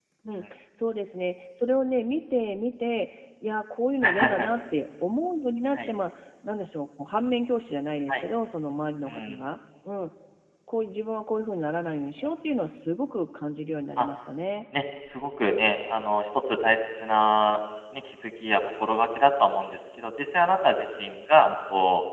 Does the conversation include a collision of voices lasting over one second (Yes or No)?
No